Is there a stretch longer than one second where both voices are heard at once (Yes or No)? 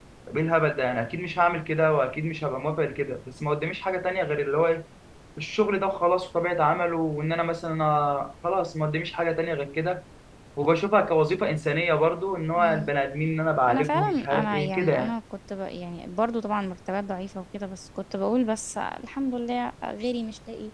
Yes